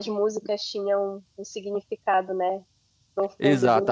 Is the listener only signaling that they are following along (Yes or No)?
No